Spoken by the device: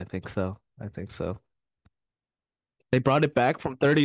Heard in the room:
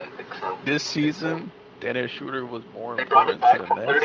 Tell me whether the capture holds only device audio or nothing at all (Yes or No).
No